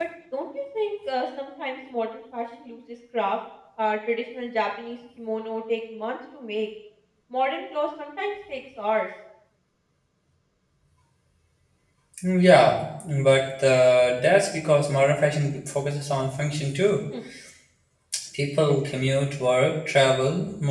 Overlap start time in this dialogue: none

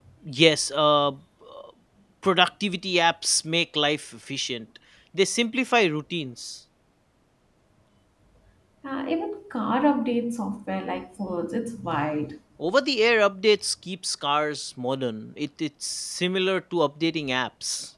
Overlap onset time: none

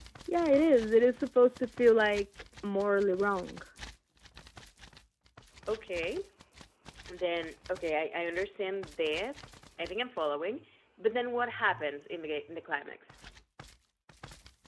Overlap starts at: none

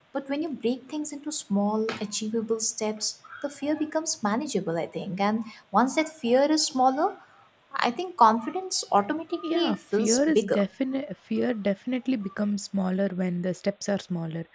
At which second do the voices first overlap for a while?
9.4 s

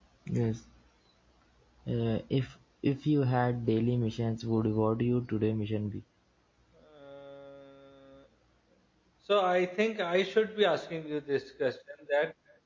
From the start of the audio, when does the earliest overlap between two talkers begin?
none

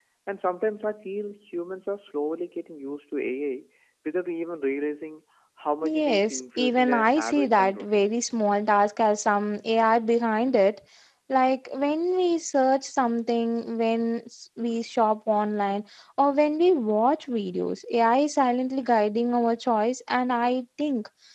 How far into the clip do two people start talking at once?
5.8 s

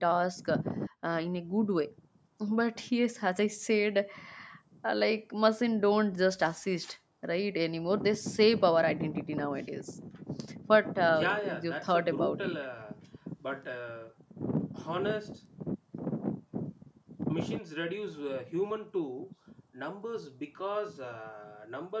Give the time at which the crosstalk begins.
11.1 s

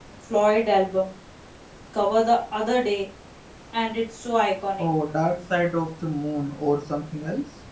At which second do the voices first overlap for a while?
none

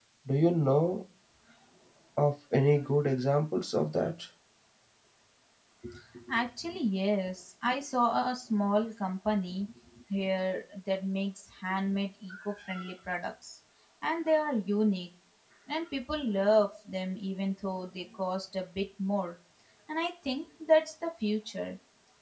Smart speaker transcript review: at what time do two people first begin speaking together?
none

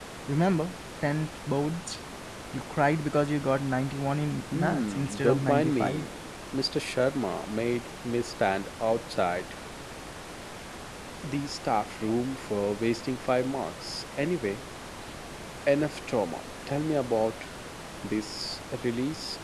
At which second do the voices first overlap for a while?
4.5 s

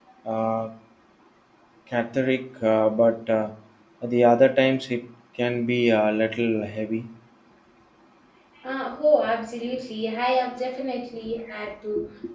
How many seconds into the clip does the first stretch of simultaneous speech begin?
none

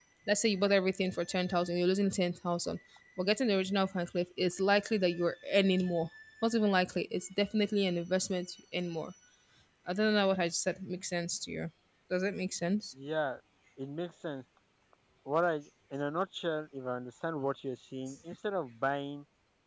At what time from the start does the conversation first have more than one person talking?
none

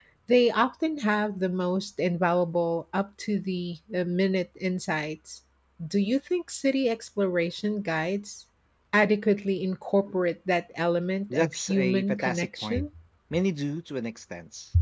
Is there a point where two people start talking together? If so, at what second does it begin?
11.3 s

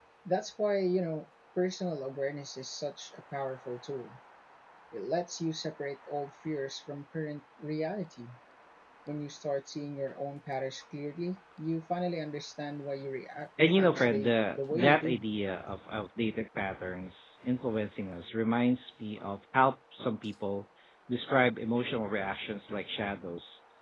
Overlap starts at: 13.6 s

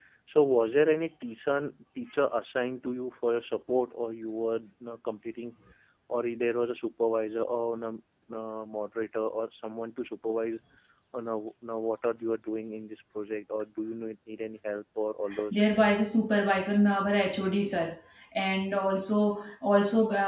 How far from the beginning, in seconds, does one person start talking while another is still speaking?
none

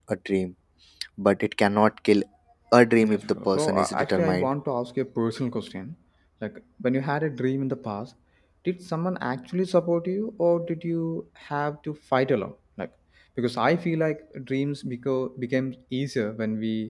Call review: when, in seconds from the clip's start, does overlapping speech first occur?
3.0 s

